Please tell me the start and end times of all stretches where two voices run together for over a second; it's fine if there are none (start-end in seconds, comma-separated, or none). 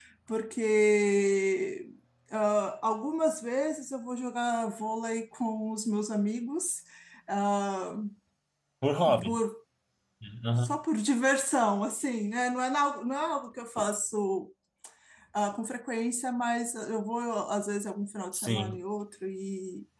none